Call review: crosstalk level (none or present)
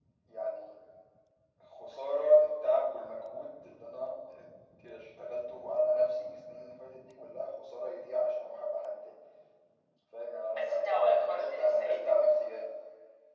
present